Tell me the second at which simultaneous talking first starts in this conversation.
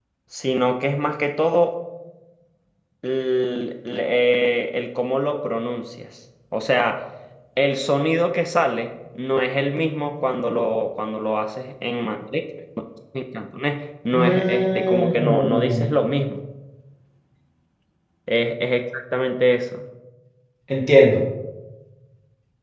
14.1 s

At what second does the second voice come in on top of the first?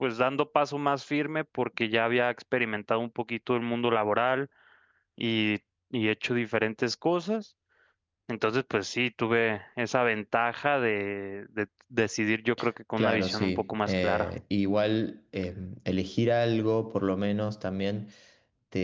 13.0 s

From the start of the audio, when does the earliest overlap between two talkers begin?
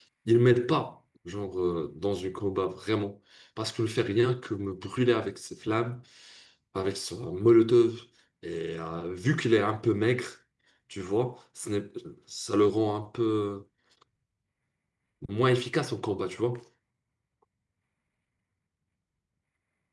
none

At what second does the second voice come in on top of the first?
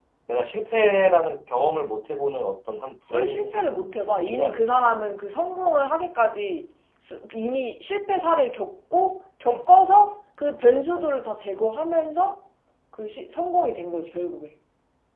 3.1 s

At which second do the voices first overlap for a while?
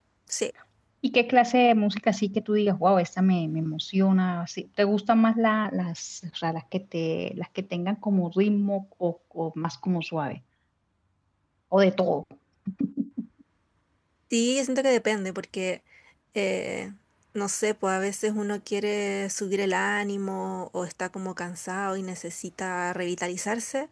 none

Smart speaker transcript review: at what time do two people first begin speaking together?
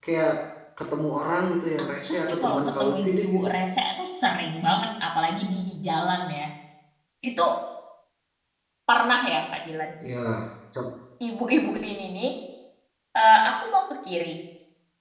1.8 s

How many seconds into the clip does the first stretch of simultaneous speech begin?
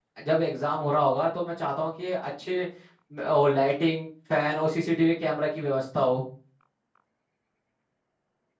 none

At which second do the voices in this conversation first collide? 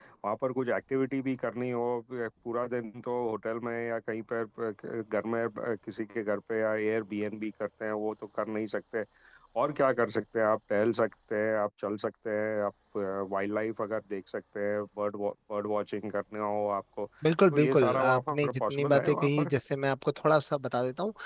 17.5 s

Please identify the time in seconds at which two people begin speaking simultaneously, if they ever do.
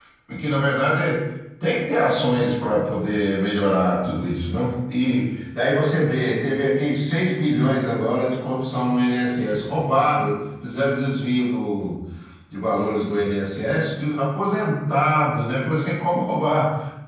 none

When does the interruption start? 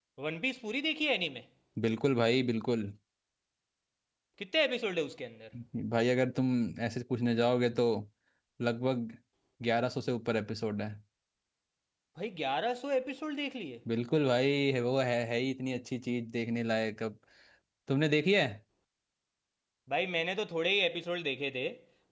none

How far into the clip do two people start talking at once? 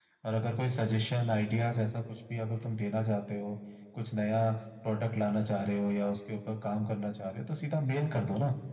none

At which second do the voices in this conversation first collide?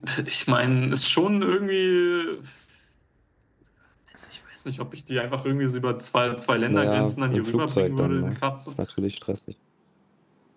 6.7 s

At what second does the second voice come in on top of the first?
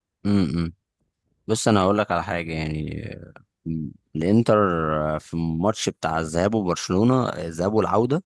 none

